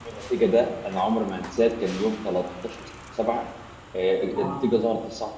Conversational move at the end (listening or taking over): listening